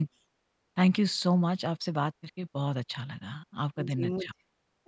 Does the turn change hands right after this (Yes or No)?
Yes